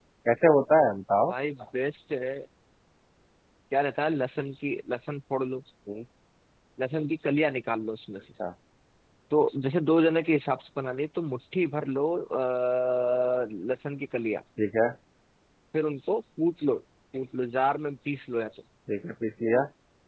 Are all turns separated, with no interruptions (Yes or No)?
Yes